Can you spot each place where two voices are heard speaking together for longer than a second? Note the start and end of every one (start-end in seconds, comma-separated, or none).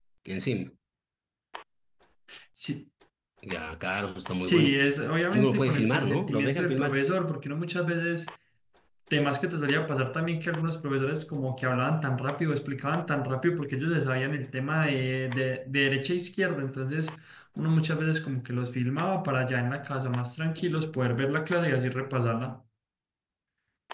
5.3-7.0